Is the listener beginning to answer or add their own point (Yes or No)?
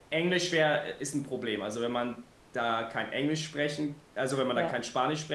No